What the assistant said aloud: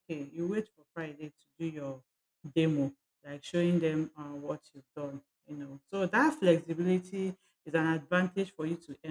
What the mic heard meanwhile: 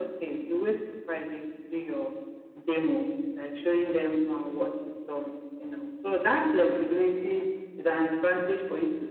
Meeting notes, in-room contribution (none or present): none